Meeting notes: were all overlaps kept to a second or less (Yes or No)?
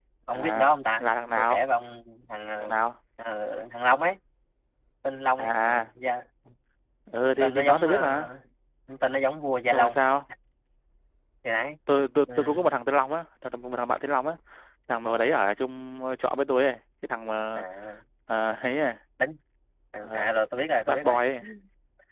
No